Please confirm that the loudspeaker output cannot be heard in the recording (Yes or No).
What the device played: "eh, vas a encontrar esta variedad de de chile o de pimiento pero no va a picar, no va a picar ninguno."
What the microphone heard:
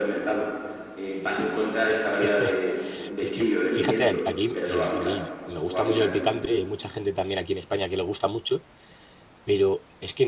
No